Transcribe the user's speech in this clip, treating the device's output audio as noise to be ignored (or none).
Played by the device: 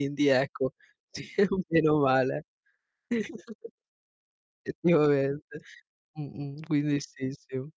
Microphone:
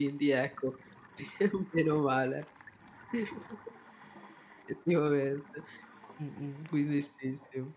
none